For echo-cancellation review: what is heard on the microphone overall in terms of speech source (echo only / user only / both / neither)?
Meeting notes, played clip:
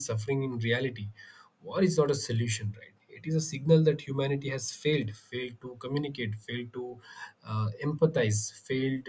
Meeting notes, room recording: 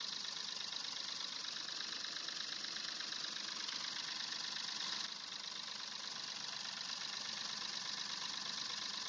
neither